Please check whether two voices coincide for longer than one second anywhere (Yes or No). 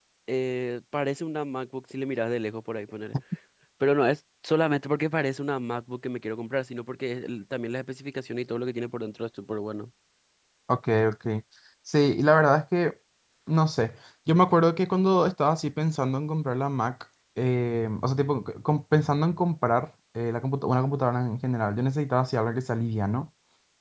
No